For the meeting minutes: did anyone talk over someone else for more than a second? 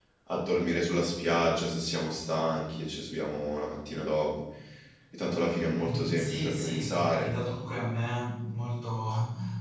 Yes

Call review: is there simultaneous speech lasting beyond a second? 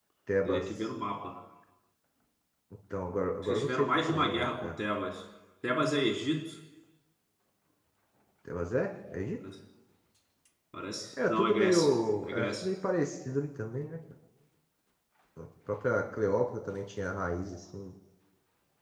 Yes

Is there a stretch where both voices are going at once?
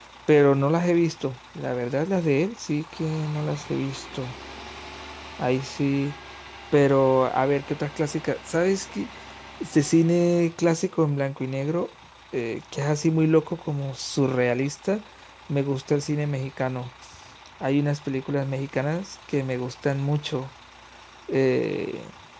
No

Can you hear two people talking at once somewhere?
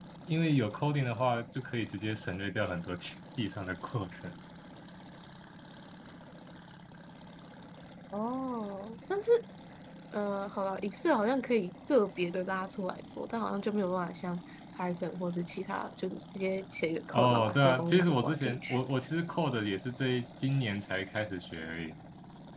Yes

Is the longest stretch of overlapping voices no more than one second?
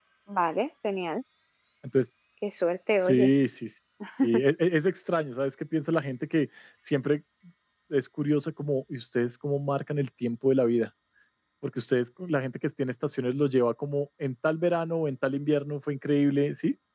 Yes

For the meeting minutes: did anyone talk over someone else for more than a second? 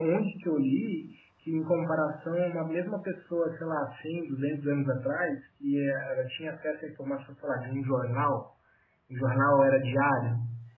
No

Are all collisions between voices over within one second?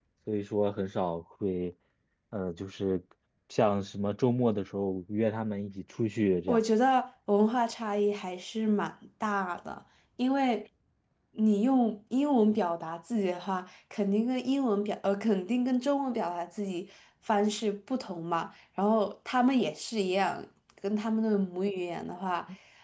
Yes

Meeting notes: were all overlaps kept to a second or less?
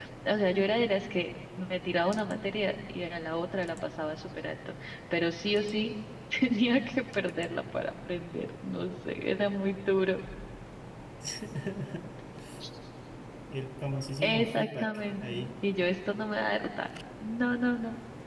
No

